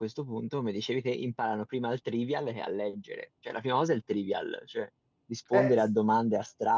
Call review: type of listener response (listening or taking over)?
listening